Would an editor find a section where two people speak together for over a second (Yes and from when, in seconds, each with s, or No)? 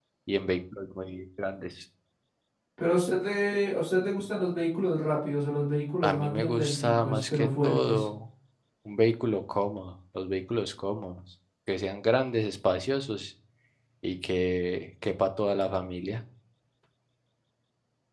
Yes, from 6.0 s